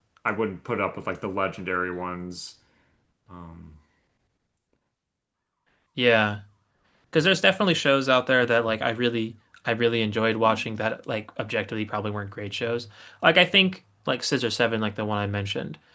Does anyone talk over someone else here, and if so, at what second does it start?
none

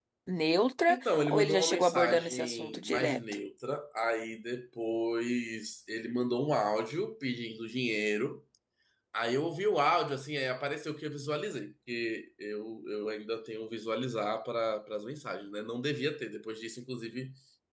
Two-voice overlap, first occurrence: 0.9 s

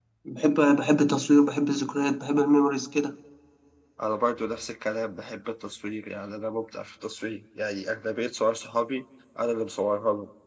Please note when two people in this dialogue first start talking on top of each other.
none

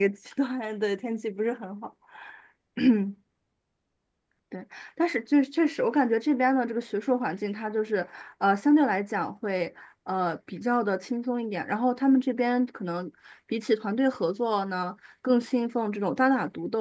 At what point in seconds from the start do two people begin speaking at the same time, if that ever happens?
none

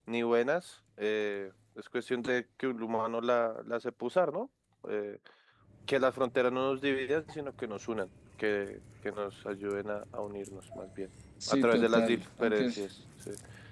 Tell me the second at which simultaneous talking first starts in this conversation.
11.4 s

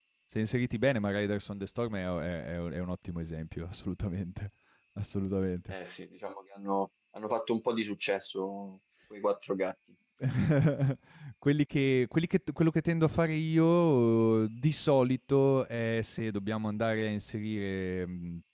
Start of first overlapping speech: none

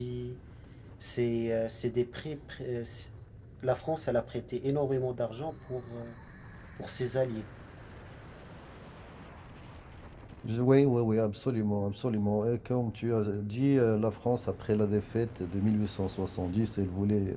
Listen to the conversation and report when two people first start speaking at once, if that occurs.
none

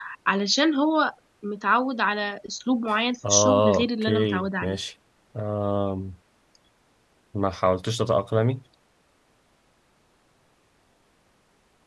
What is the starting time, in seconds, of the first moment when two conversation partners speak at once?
3.2 s

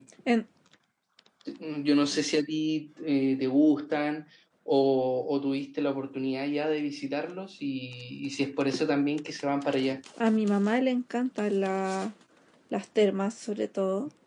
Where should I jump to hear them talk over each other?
none

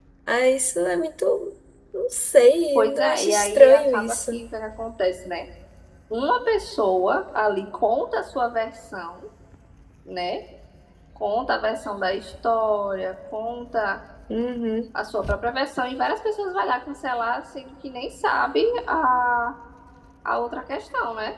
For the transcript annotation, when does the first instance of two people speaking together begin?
2.8 s

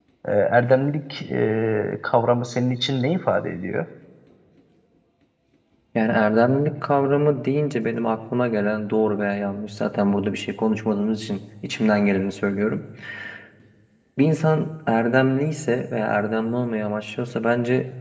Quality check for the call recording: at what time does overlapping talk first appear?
none

